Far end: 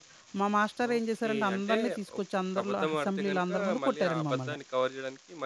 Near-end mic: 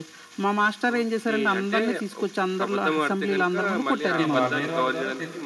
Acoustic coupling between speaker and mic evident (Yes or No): Yes